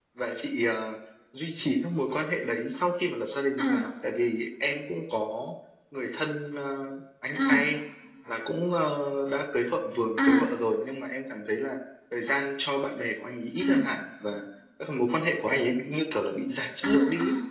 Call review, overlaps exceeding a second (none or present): none